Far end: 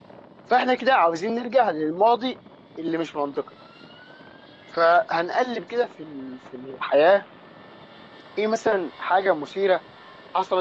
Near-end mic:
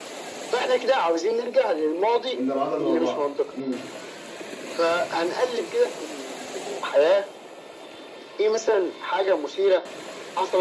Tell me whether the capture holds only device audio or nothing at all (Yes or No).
No